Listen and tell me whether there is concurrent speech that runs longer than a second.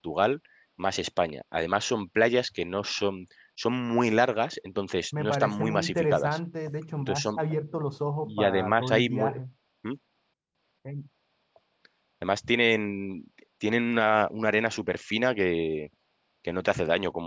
Yes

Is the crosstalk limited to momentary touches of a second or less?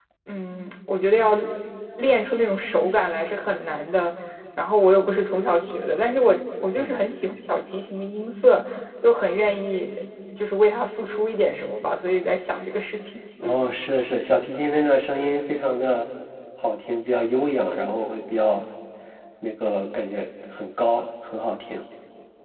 Yes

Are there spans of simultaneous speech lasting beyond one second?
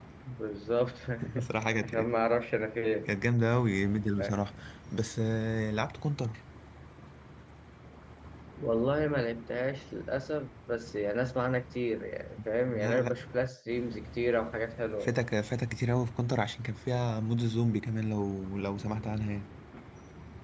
No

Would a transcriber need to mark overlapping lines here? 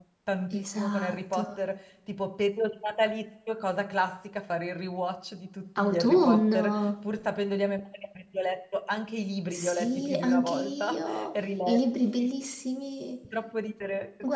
Yes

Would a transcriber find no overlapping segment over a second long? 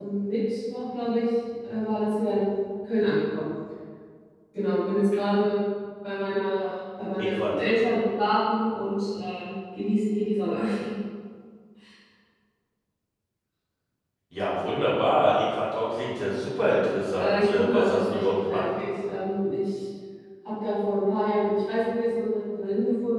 No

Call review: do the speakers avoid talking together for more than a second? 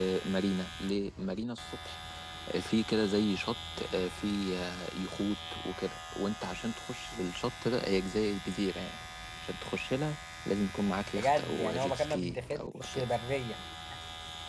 No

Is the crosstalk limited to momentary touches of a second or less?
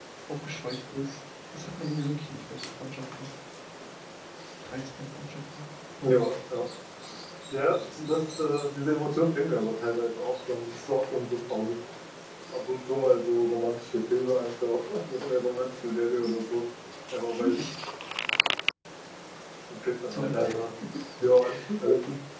Yes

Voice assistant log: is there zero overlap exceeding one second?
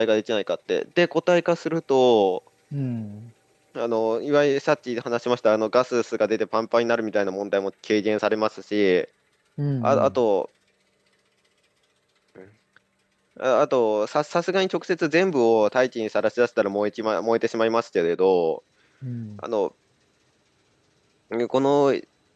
Yes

